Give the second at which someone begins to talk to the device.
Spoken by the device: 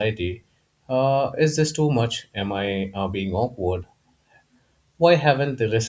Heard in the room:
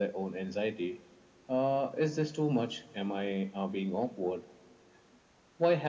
none

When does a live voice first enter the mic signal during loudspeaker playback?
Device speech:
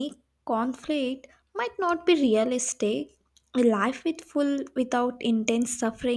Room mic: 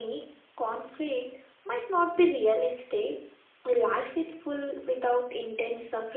none

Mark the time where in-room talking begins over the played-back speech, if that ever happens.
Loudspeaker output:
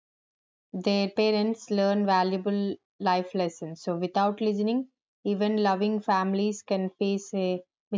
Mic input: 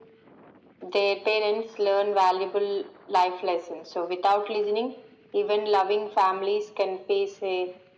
none

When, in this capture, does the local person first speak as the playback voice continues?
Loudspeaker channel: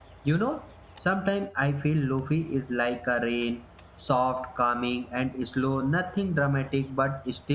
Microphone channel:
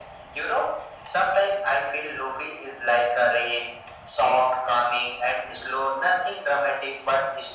none

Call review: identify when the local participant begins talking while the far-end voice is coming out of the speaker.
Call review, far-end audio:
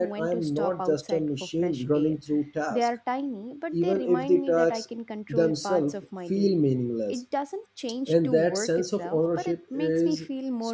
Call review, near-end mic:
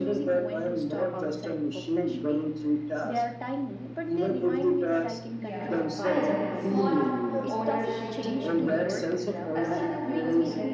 5.3 s

